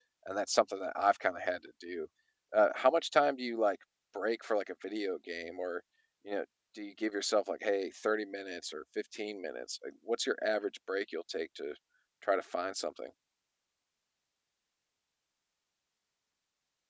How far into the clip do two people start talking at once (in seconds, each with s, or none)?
none